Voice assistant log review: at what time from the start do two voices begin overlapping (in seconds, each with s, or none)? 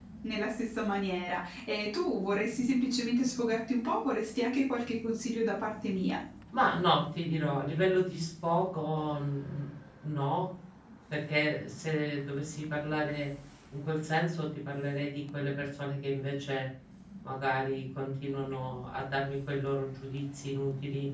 none